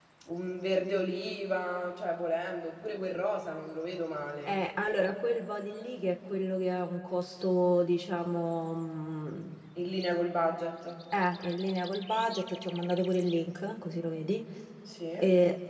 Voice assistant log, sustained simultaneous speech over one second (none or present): none